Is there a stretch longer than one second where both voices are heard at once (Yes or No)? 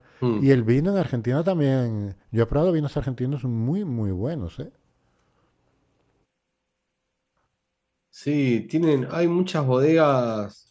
No